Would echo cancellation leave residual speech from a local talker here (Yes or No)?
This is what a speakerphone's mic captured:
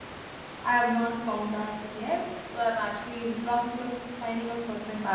Yes